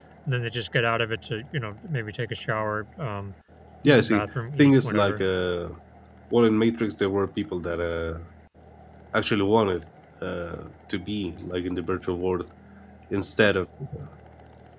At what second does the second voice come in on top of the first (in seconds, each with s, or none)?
3.8 s